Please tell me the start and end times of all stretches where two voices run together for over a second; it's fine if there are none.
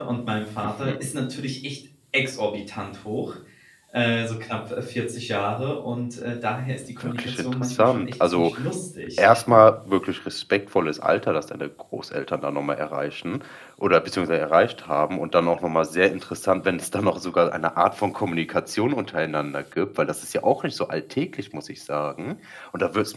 7.0-8.5

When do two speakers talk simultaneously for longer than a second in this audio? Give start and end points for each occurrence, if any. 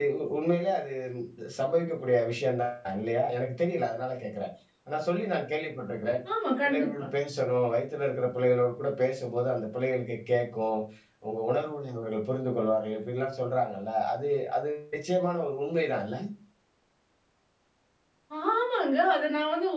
none

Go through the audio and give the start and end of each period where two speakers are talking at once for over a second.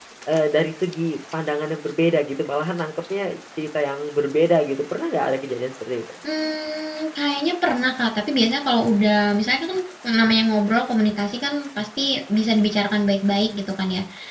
none

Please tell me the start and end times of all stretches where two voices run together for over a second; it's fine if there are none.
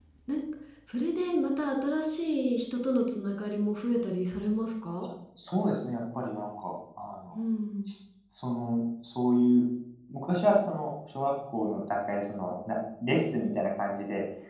none

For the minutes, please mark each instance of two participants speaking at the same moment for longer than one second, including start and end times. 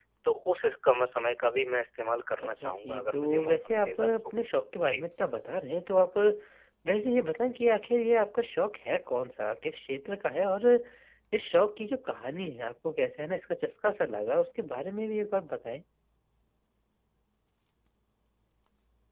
2.4-4.1

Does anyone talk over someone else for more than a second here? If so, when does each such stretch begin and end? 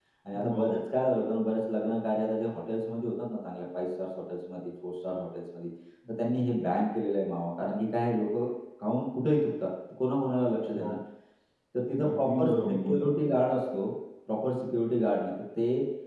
12.2-13.3

